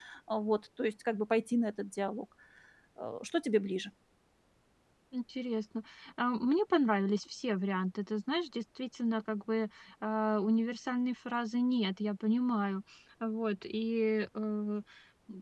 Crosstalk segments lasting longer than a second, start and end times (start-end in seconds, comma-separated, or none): none